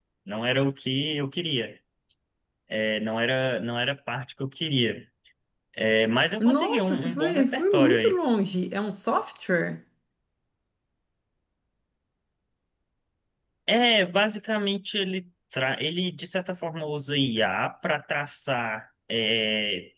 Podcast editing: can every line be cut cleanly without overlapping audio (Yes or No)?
No